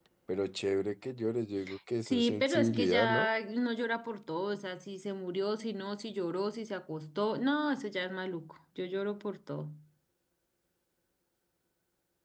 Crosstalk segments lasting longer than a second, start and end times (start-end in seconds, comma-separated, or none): 2.1-3.3